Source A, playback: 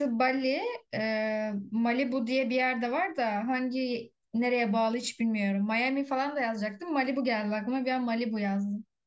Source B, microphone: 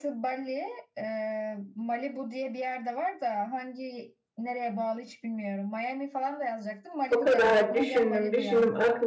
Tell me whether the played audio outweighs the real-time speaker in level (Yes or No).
No